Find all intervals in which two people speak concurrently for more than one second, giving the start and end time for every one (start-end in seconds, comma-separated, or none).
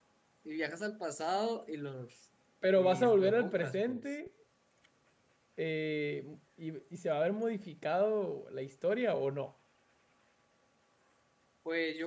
2.8-4.0